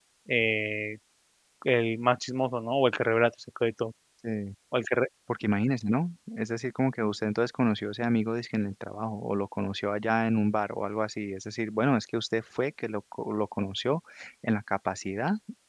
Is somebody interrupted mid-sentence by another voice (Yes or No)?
No